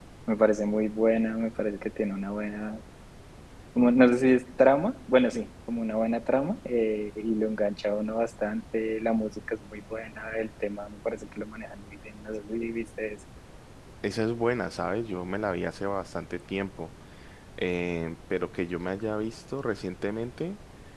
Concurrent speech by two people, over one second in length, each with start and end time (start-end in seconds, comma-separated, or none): none